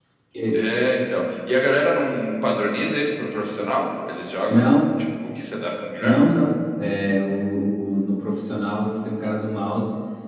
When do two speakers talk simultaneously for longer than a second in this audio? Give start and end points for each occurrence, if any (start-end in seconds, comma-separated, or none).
none